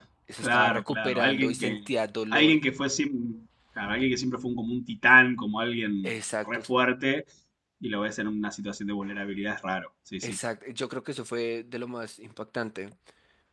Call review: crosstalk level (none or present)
present